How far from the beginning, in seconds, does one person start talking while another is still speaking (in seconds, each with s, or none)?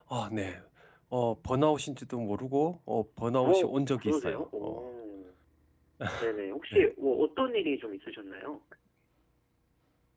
3.4 s